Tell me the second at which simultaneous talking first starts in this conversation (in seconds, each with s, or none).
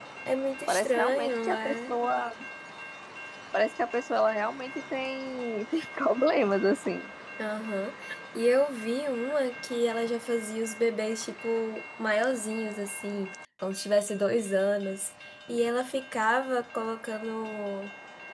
0.7 s